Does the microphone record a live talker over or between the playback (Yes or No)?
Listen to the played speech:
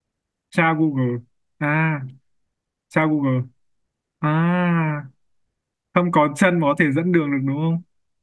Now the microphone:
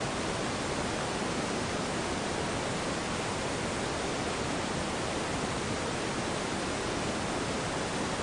No